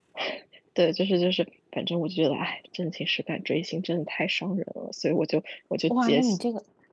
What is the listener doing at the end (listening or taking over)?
taking over